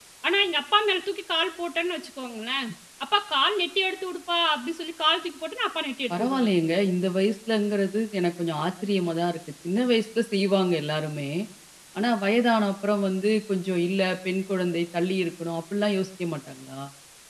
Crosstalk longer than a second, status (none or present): none